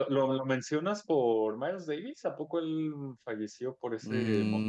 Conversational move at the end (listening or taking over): taking over